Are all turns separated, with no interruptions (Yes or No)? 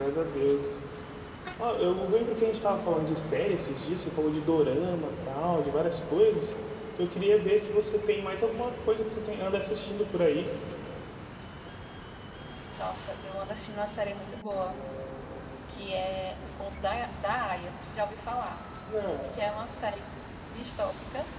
Yes